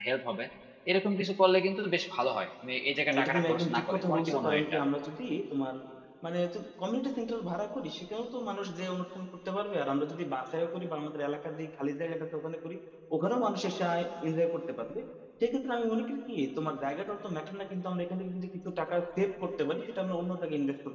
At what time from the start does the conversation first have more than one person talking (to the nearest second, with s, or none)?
3 s